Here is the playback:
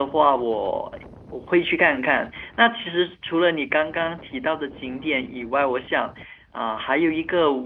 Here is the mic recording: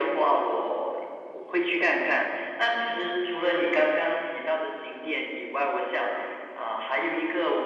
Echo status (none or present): present